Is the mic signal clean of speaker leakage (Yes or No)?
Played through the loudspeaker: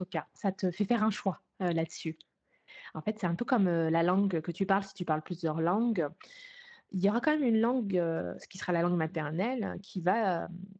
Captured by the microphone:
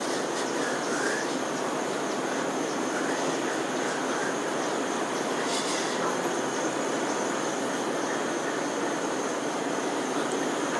Yes